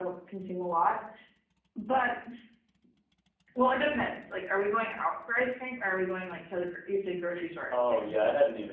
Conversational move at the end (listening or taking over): taking over